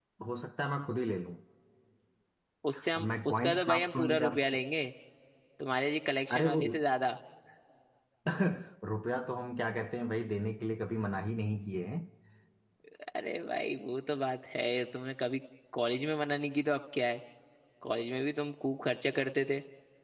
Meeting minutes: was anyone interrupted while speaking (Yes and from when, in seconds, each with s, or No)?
Yes, from 3.0 s